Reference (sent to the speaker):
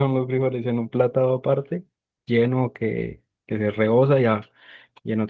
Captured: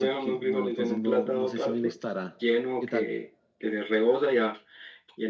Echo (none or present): present